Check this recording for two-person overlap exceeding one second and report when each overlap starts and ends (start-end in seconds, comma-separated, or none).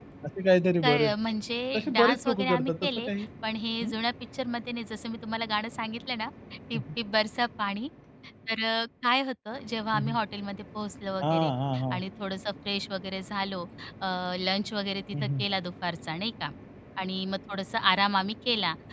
1.8-3.1